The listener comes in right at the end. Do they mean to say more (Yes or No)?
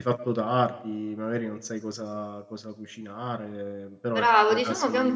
Yes